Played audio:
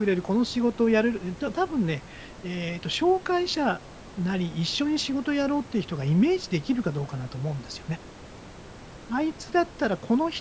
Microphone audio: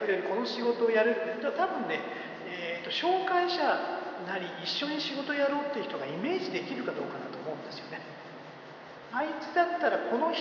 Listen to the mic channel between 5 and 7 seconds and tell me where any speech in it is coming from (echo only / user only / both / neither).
echo only